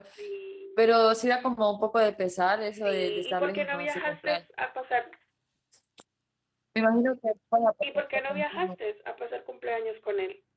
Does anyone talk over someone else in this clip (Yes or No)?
Yes